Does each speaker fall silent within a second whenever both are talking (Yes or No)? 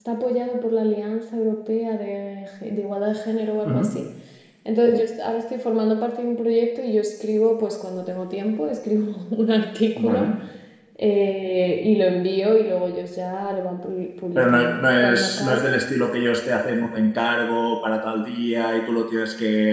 No